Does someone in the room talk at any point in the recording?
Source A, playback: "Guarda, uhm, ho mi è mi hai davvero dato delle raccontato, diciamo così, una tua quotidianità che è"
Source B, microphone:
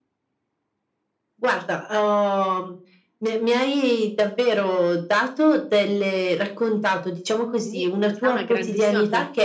Yes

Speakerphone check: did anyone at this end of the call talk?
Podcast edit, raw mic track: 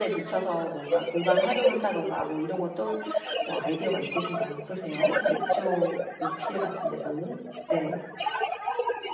Yes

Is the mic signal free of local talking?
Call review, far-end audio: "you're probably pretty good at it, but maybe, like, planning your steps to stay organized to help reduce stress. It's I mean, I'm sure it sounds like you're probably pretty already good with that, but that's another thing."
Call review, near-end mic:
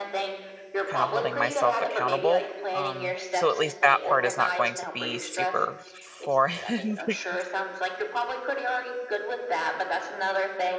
No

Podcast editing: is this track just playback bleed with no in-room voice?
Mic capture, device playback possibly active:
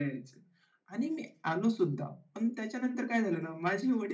Yes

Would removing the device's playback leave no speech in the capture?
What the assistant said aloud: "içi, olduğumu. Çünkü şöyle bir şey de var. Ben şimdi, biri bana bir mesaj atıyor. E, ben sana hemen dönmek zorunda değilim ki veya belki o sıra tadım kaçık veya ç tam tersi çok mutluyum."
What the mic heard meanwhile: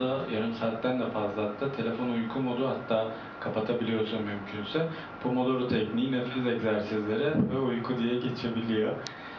No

